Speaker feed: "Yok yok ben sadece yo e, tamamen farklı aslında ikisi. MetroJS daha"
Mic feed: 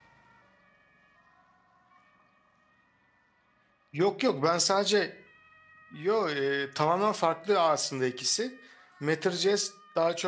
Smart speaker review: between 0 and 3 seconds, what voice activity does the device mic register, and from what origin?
neither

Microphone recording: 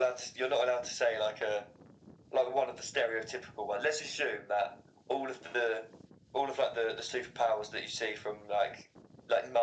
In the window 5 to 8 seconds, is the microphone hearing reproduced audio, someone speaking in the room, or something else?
echo only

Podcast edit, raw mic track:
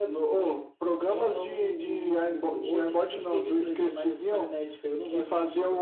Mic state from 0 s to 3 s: echo only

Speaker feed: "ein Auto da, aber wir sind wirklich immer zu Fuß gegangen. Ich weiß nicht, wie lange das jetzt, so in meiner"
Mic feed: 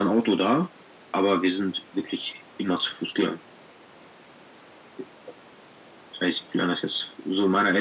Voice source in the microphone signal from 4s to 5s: neither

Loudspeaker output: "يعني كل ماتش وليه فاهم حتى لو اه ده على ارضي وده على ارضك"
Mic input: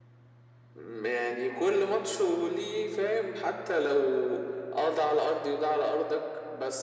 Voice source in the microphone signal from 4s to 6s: echo only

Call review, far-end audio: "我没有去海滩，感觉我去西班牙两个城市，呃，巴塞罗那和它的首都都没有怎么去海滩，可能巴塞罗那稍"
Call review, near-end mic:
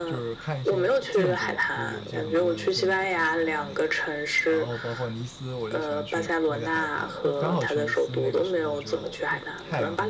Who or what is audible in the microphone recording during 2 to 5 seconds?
both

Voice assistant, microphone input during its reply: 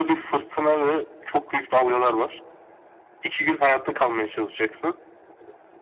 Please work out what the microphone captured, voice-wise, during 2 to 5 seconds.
echo only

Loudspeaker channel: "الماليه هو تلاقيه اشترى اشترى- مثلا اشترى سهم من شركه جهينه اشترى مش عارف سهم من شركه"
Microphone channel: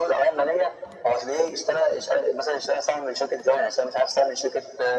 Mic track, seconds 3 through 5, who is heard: echo only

